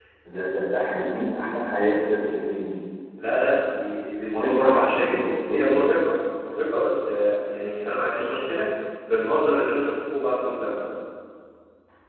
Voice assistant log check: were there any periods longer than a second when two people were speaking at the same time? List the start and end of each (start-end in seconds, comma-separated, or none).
4.3-5.7